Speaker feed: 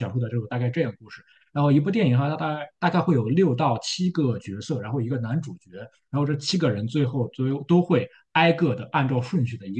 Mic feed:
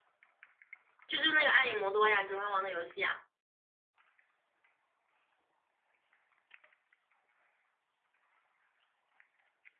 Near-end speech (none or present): present